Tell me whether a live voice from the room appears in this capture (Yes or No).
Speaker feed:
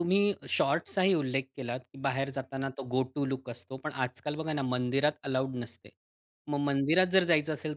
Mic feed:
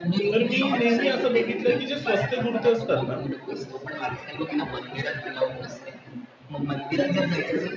Yes